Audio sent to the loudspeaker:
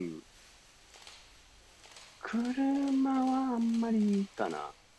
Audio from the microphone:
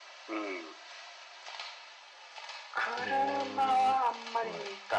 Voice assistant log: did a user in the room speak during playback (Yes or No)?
Yes